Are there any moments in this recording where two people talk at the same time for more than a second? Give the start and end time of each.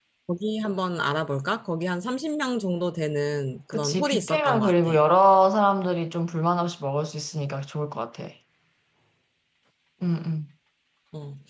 3.7-4.9

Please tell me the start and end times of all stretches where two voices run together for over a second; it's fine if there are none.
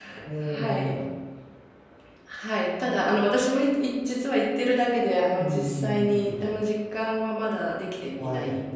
5.3-6.5

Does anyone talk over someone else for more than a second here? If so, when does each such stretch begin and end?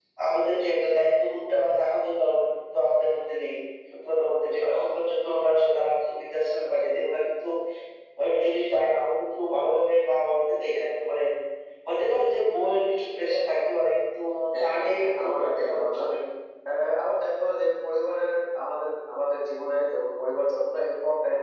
14.6-16.1

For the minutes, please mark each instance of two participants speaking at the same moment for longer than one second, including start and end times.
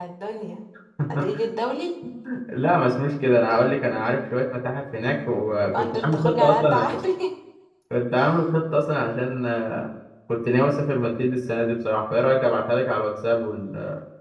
5.7-7.0

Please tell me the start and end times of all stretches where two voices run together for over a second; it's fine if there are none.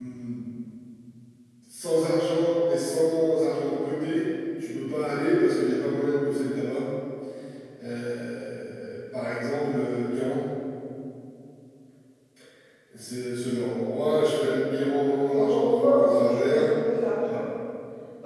15.3-16.7

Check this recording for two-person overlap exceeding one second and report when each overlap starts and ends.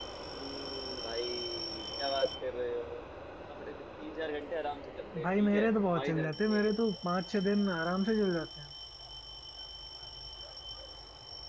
5.2-6.7

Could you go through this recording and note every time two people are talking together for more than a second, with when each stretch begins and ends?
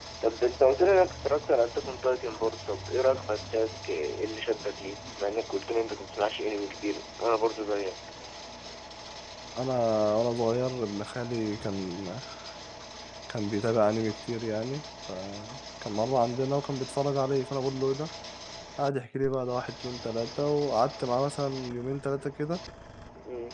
none

